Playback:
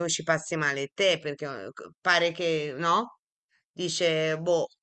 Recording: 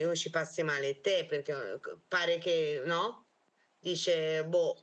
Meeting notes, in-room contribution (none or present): none